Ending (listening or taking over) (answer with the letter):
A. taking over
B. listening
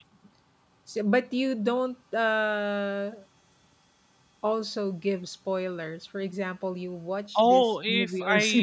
A